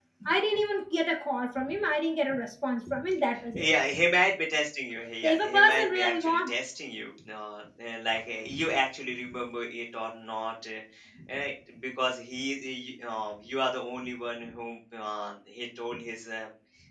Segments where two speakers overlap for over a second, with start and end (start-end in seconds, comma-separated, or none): 5.2-6.5